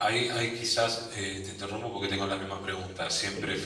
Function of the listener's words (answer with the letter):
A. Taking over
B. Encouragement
B